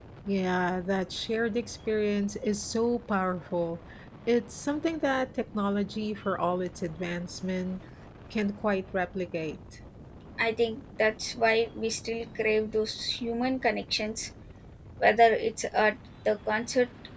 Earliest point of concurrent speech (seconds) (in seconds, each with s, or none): none